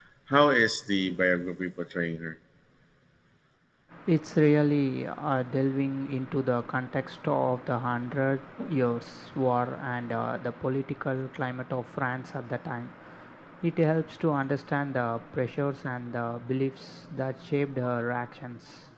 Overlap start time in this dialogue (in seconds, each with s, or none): none